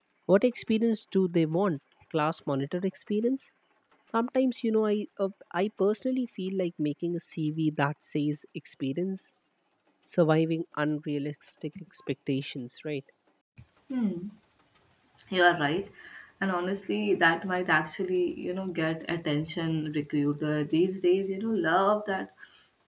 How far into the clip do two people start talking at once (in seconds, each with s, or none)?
none